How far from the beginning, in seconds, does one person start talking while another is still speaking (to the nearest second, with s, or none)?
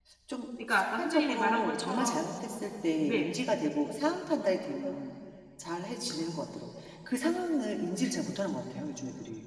1 s